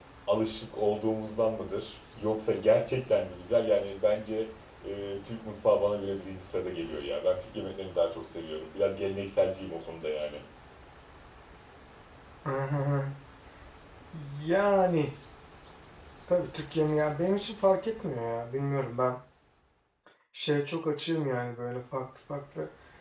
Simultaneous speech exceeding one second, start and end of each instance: none

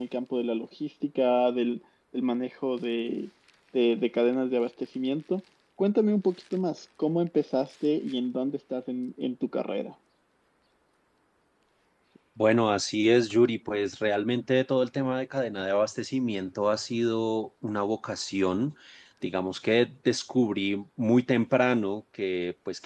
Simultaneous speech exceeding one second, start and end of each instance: none

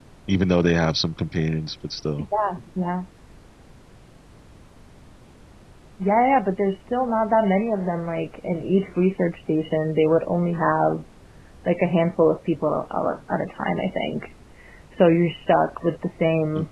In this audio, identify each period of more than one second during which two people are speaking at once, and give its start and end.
none

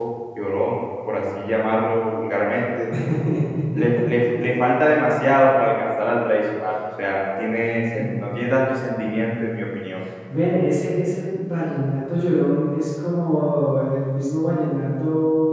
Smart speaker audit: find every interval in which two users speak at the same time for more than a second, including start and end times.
none

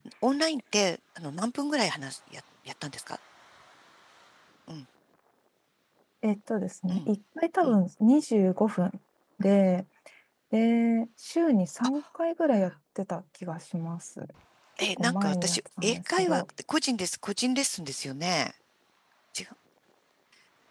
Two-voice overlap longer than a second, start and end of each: 15.0-16.4

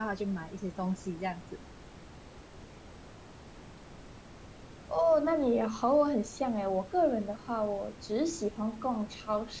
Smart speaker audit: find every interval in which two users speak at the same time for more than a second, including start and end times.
none

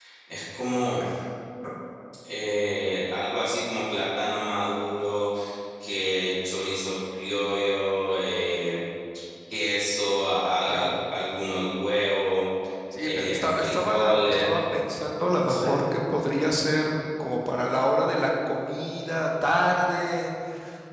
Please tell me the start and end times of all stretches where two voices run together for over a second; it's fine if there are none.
13.0-14.6

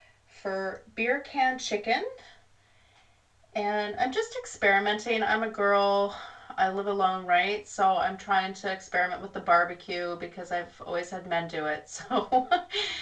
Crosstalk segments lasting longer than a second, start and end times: none

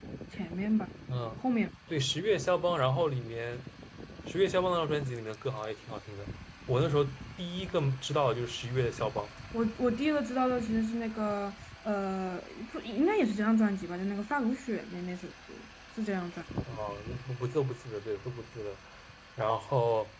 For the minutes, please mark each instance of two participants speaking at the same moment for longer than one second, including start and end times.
none

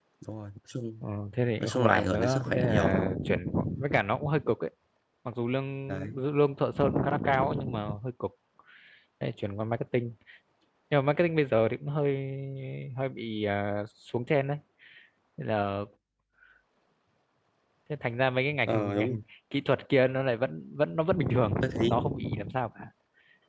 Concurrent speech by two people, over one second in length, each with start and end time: 1.6-3.1

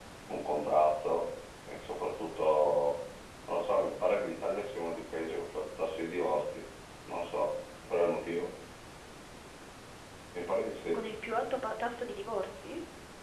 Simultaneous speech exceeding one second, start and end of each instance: none

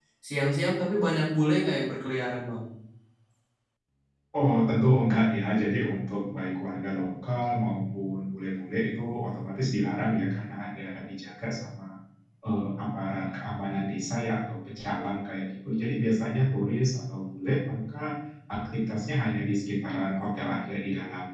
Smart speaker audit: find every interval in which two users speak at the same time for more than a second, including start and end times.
none

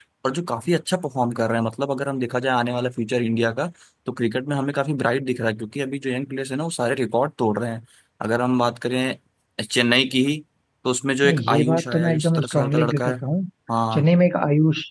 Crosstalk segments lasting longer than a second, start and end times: 11.2-13.2

